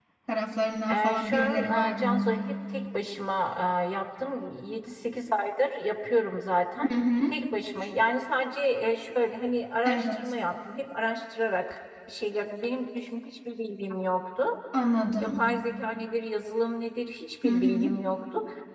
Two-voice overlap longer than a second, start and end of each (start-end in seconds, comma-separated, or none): 0.9-2.3